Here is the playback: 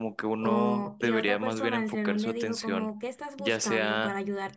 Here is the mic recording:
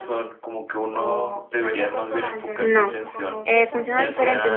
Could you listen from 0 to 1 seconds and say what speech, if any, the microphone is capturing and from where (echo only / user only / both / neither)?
echo only